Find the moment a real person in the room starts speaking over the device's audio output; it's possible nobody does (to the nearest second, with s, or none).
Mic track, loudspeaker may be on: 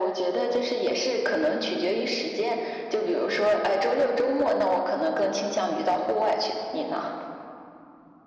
none